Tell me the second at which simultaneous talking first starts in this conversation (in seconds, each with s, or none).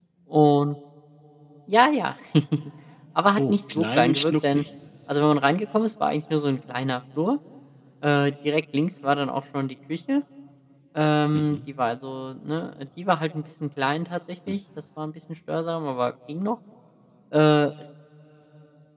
3.4 s